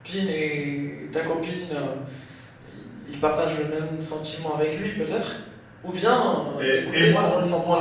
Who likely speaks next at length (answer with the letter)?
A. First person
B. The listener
B